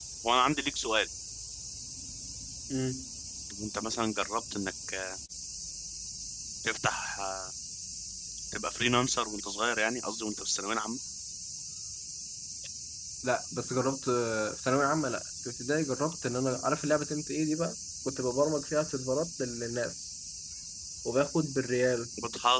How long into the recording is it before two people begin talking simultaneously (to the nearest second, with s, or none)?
none